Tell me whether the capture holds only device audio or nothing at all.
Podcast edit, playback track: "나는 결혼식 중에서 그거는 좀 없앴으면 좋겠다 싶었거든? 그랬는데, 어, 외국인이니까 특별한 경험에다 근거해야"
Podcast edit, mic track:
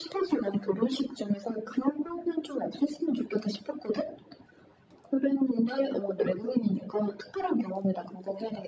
Yes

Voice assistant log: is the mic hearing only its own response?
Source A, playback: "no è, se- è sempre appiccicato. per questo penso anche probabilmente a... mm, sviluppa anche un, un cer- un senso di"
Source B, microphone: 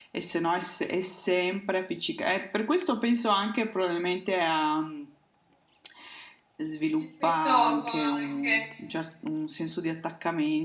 No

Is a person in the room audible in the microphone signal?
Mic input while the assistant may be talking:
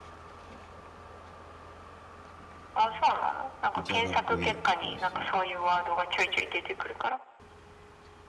Yes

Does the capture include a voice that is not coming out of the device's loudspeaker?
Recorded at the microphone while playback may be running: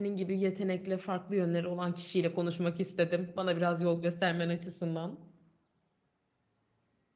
Yes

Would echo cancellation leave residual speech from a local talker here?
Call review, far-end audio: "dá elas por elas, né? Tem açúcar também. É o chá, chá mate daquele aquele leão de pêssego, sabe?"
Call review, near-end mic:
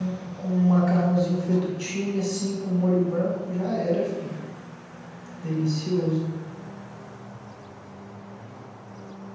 Yes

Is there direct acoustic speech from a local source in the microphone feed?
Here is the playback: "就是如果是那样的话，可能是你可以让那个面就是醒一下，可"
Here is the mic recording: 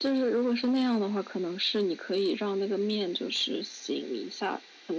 No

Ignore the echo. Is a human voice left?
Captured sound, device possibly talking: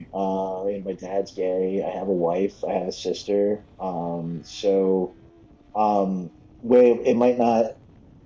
Yes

